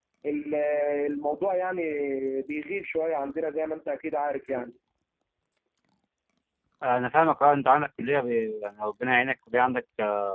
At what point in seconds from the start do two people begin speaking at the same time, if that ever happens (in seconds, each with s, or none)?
none